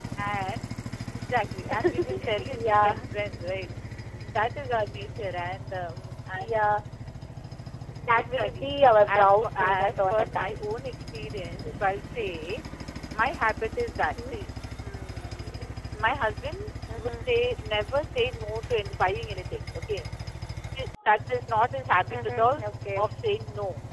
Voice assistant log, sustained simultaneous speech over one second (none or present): present